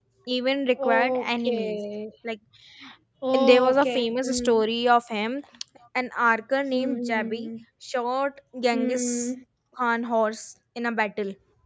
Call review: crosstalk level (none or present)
present